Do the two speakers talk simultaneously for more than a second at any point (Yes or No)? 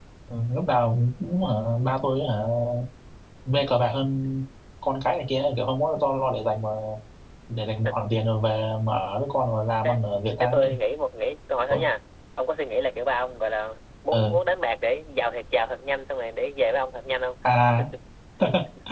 No